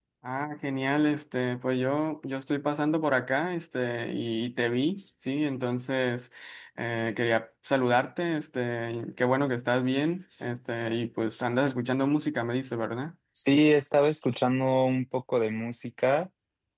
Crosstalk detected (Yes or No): No